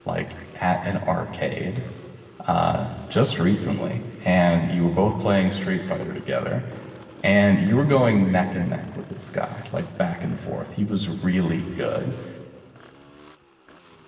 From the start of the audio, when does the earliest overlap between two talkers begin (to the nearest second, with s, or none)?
none